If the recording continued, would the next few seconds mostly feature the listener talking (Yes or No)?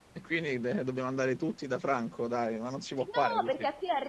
Yes